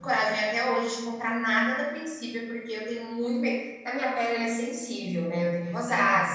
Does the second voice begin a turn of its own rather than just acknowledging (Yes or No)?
No